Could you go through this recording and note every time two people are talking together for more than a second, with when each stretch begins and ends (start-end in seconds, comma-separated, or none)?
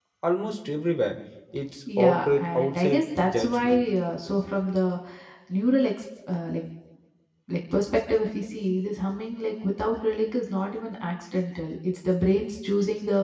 2.0-3.8